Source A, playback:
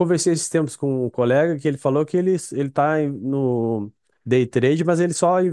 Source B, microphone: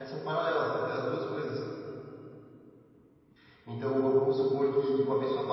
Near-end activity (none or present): present